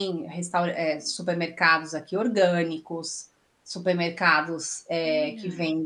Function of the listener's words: listening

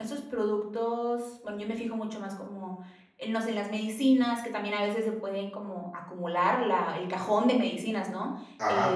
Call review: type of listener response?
taking over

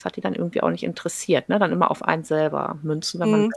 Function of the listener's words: taking over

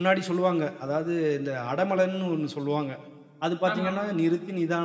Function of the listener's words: listening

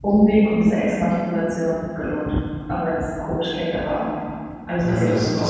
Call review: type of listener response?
taking over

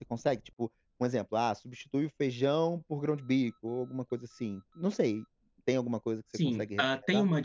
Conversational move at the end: taking over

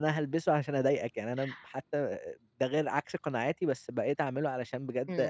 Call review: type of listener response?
taking over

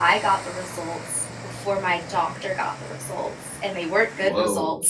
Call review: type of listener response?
listening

